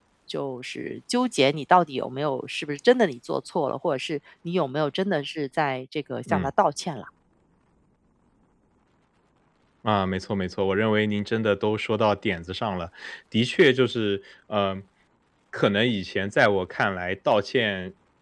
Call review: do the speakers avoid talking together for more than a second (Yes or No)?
Yes